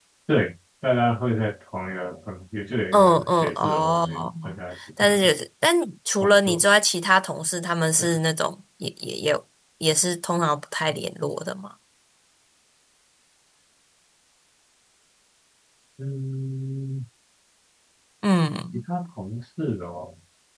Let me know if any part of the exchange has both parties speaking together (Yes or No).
Yes